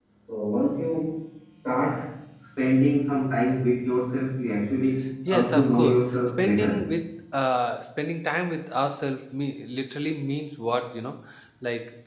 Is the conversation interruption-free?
No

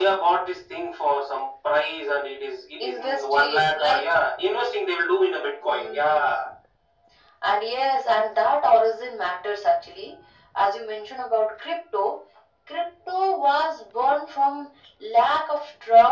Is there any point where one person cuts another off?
Yes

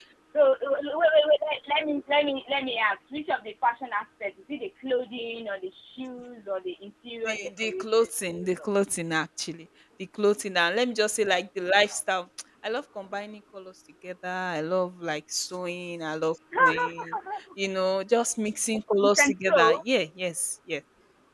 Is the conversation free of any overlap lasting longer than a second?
No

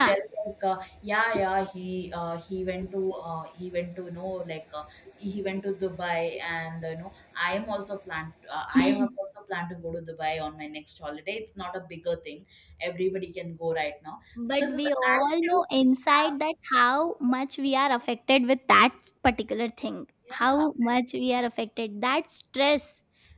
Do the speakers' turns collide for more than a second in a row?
Yes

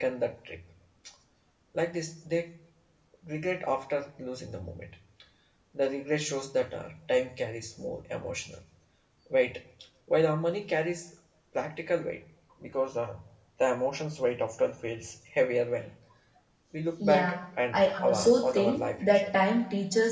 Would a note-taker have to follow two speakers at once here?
Yes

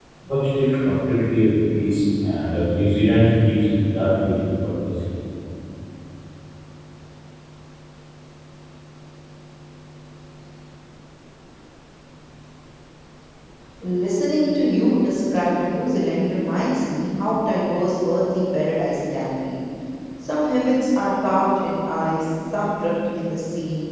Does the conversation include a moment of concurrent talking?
No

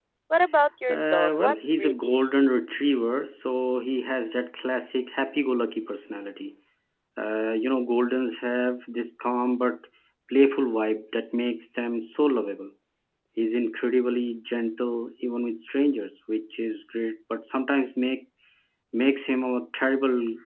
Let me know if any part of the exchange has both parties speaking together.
Yes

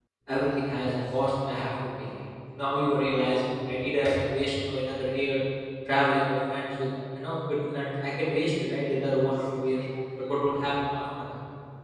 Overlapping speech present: No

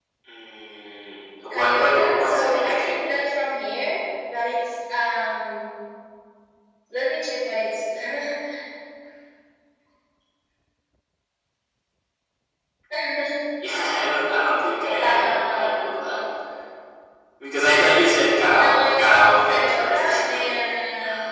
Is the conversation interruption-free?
No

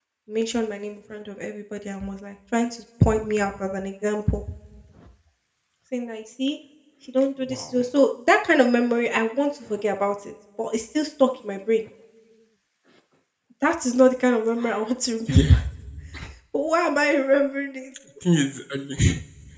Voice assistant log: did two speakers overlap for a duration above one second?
No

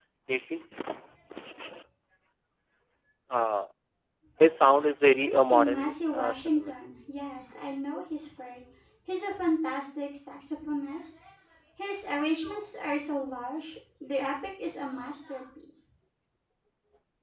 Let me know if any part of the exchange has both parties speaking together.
Yes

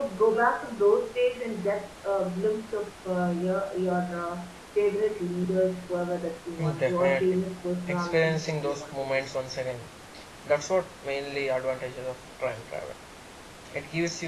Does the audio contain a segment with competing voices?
Yes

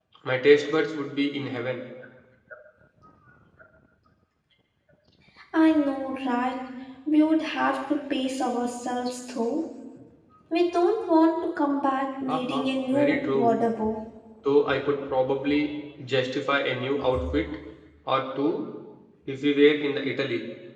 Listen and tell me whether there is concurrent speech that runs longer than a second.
Yes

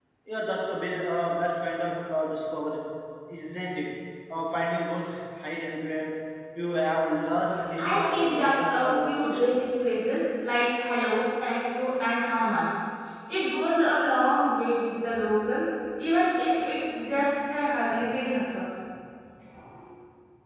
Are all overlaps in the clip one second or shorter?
No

